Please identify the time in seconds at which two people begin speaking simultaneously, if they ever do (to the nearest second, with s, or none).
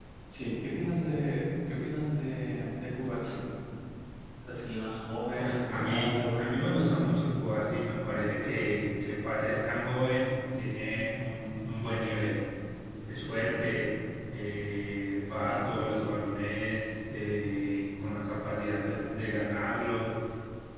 5 s